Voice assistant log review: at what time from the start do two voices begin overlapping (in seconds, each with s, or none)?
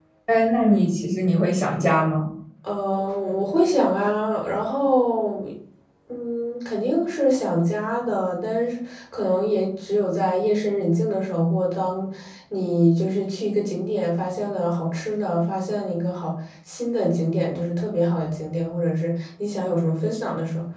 none